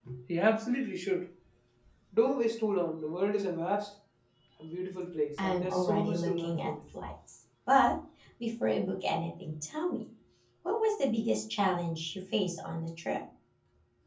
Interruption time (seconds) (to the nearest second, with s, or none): 5 s